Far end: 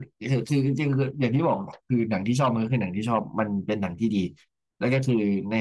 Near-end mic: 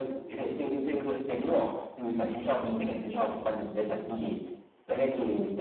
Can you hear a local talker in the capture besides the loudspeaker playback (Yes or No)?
No